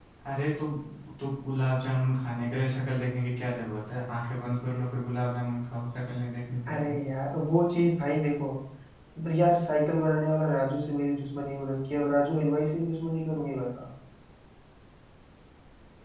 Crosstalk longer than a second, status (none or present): none